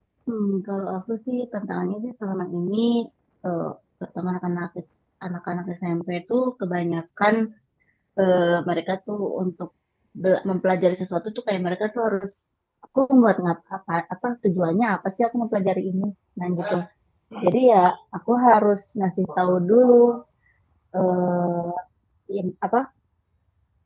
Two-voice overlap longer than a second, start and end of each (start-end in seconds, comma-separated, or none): none